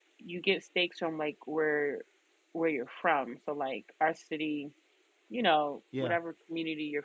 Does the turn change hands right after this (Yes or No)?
No